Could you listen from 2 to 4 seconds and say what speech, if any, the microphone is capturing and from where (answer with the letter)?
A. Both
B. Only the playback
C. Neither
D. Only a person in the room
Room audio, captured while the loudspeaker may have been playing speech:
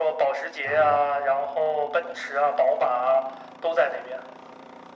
B